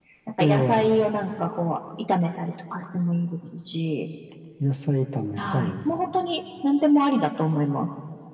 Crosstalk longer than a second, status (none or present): none